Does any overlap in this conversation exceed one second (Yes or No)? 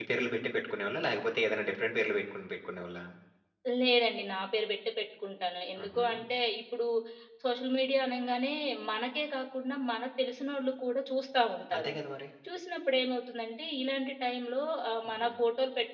No